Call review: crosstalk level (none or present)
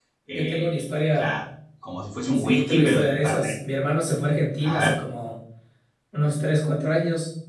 present